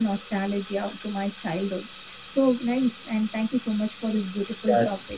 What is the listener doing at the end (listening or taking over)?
taking over